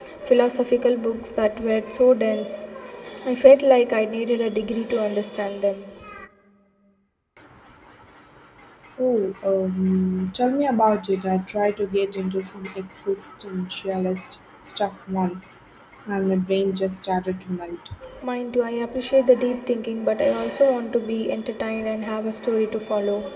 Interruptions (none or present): none